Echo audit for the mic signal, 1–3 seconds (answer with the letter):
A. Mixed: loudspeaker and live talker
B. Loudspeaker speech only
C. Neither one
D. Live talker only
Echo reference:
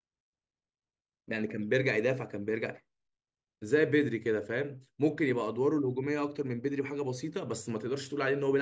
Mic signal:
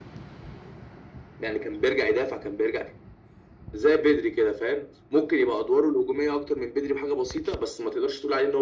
B